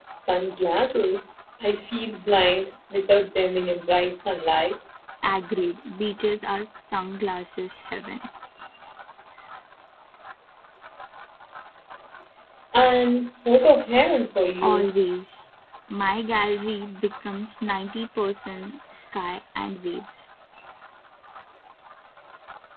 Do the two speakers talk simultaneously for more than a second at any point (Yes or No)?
No